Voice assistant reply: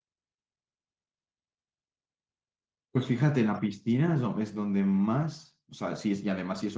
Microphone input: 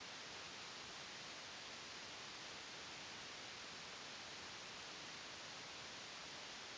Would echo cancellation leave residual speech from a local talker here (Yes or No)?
No